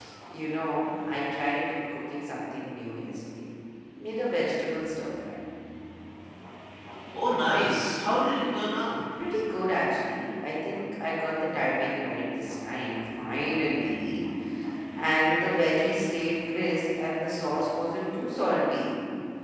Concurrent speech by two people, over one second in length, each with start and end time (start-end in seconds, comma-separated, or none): none